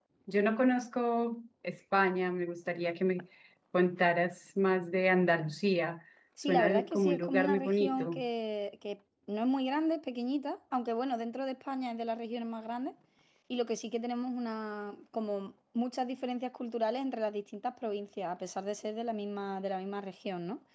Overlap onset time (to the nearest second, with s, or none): 6 s